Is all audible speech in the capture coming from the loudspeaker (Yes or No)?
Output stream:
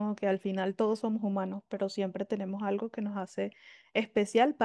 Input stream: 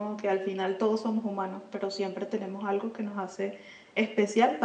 Yes